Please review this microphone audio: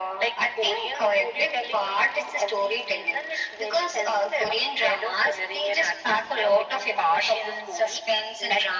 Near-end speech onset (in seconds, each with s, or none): none